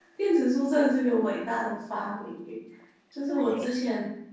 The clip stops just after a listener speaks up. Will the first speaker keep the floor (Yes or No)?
Yes